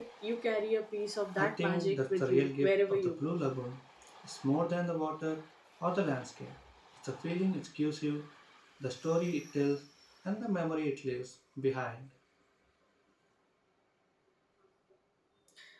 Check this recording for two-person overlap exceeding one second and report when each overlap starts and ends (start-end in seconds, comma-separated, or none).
1.4-3.4